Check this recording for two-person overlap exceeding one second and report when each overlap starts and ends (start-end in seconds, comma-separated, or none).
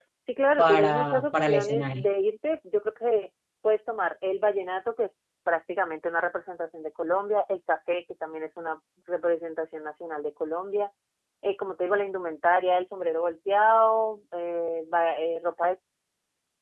0.6-2.0